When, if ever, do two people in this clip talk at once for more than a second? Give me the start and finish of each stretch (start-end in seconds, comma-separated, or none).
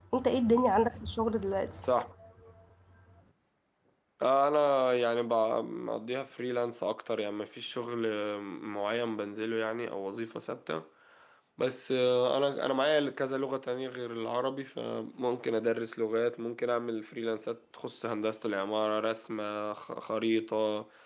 none